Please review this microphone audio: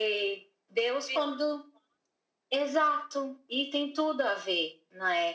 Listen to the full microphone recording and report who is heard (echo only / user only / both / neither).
echo only